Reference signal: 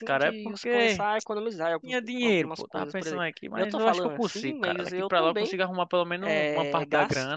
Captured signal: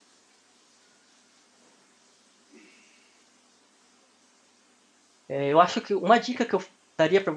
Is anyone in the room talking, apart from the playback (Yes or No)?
Yes